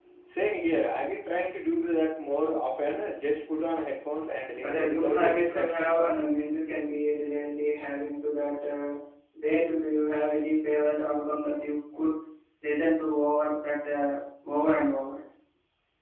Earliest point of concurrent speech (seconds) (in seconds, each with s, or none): 4.6 s